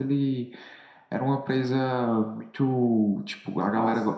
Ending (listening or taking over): listening